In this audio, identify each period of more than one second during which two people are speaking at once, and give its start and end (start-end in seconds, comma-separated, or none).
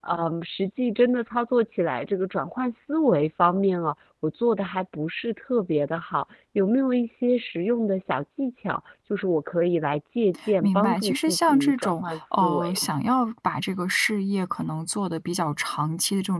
10.6-12.8